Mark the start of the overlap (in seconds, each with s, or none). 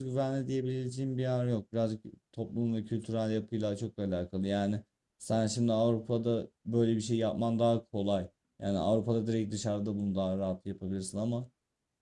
none